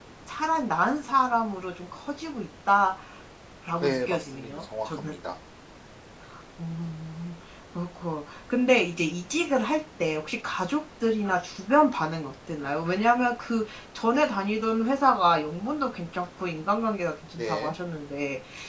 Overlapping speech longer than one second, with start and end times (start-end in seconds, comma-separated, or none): 3.8-5.1